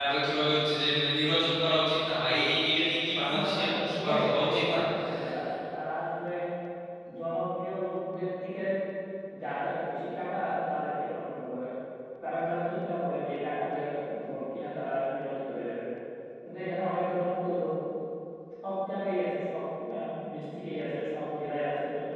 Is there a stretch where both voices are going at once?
Yes, from 3.1 s

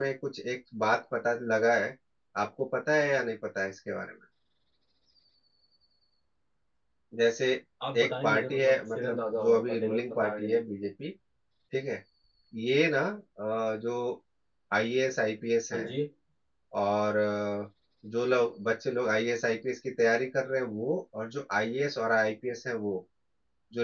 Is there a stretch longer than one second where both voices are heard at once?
Yes, from 8.0 s

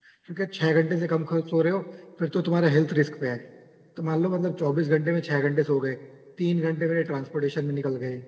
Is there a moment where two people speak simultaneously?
No

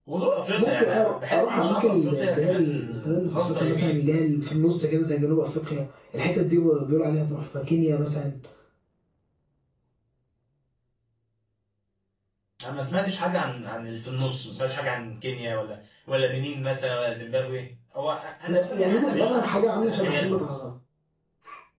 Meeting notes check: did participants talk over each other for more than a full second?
Yes, from 0.6 s

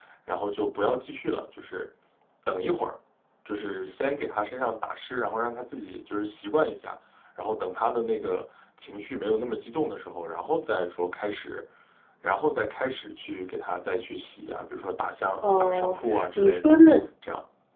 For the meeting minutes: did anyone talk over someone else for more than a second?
Yes, from 15.4 s

